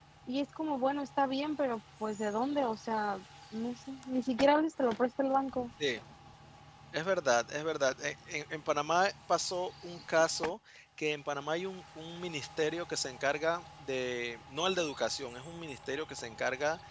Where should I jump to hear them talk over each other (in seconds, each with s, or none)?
none